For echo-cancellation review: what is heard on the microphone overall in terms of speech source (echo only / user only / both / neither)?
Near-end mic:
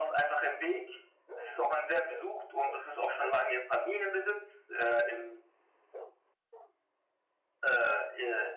echo only